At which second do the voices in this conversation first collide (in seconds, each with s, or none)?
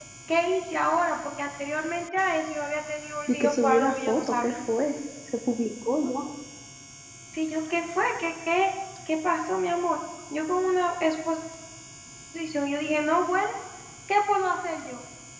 3.3 s